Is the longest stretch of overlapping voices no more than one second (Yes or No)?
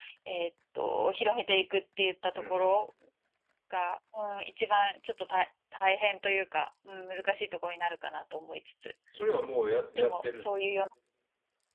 Yes